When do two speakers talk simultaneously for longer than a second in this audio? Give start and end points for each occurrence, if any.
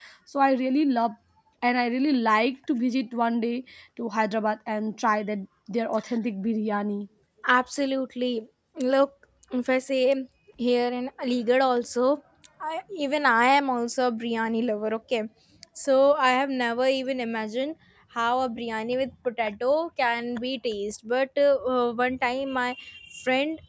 none

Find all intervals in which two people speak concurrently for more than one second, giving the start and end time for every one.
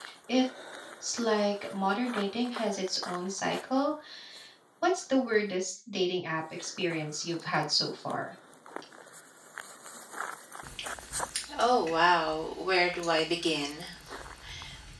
none

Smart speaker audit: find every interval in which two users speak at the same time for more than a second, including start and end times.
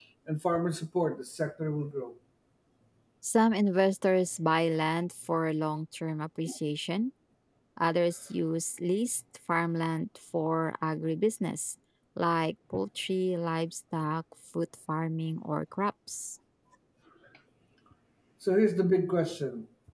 none

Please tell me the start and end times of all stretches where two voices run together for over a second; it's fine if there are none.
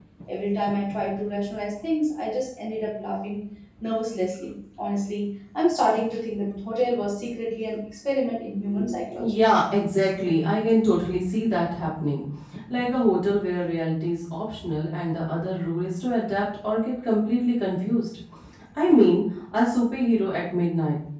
none

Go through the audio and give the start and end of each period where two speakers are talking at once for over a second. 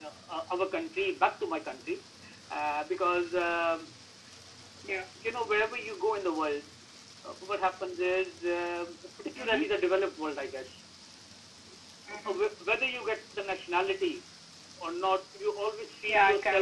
none

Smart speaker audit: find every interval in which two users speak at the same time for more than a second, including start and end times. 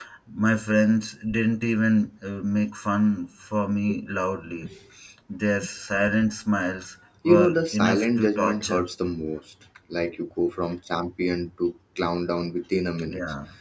7.2-8.8

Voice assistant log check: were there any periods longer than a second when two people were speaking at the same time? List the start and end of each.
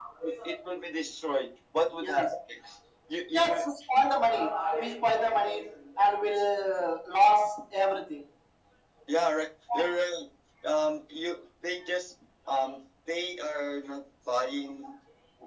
none

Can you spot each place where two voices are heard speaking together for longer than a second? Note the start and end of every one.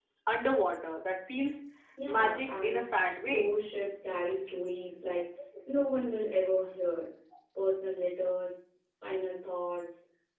2.1-3.5

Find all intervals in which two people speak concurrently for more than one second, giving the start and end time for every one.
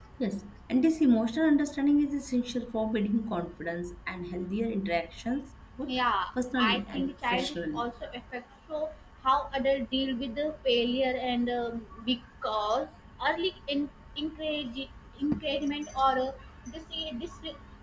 6.6-7.8

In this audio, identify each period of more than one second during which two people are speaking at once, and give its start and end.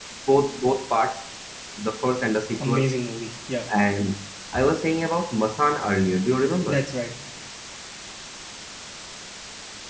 none

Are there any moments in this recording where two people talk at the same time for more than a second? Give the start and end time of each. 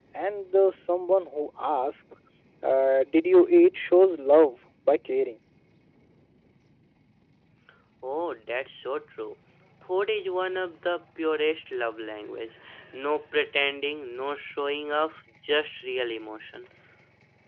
none

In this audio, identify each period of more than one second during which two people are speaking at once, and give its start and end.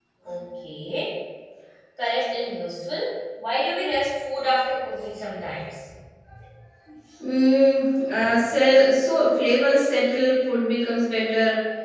none

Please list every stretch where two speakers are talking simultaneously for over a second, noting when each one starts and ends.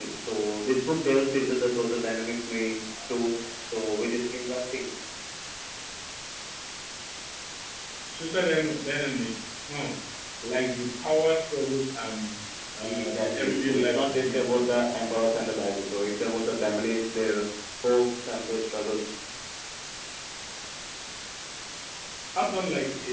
12.8-14.8

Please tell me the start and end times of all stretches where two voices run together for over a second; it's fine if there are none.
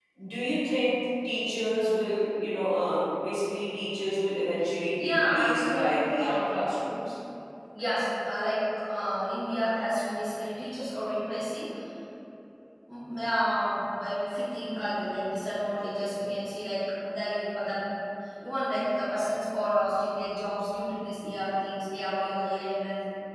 5.0-6.6

